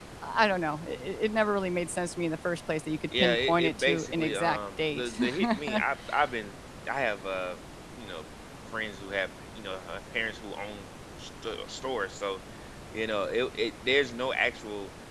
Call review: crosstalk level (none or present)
present